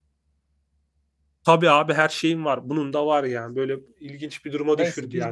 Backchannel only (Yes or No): No